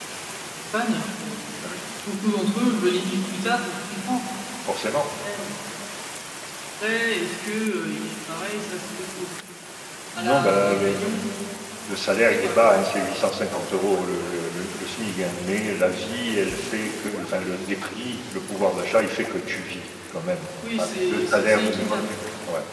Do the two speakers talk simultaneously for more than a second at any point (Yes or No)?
Yes